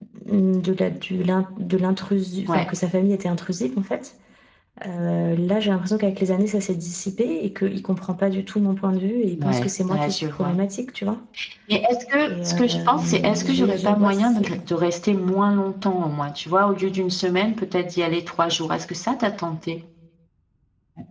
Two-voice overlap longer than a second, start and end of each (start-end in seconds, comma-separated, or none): 9.3-10.6, 12.3-14.5